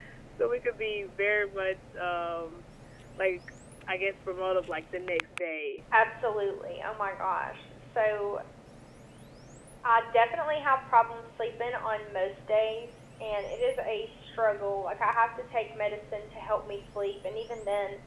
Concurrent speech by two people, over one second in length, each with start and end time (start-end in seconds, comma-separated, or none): none